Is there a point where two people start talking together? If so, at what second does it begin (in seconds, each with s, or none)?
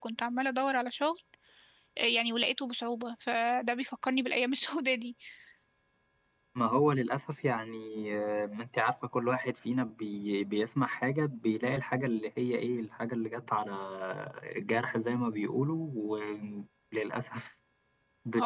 none